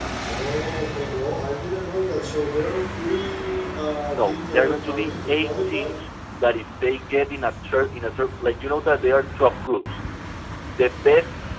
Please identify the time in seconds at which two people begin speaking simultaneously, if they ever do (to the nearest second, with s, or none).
4 s